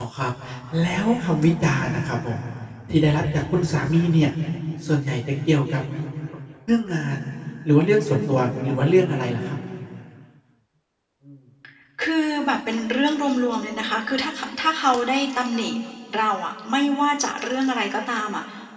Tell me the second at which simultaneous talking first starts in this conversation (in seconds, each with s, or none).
none